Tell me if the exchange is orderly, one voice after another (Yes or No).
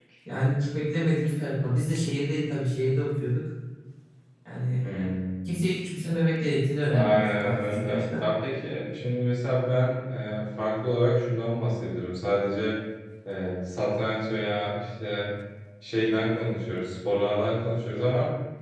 No